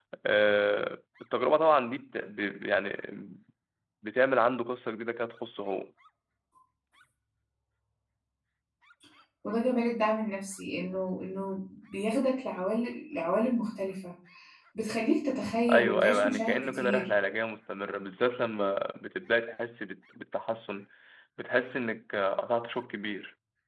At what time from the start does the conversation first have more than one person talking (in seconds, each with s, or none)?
15.7 s